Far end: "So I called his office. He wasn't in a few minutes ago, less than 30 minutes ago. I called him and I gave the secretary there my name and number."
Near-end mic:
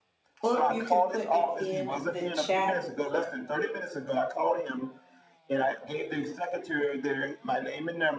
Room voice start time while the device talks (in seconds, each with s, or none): 0.4 s